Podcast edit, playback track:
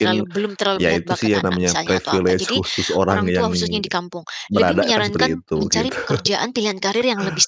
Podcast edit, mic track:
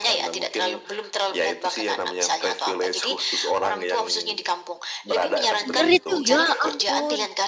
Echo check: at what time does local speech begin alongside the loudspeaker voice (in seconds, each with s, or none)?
5.6 s